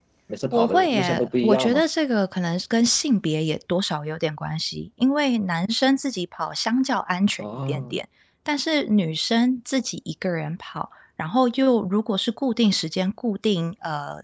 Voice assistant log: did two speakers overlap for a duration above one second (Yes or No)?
Yes